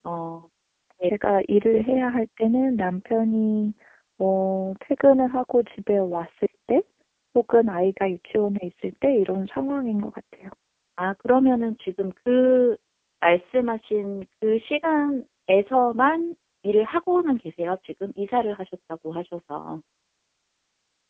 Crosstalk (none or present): none